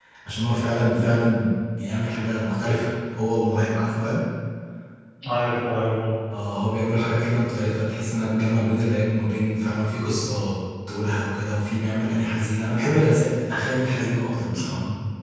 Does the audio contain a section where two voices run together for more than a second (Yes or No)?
No